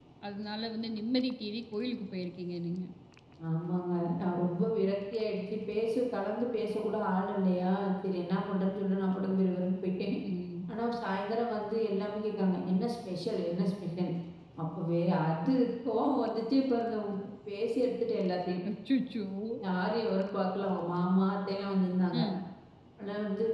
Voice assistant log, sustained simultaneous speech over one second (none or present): none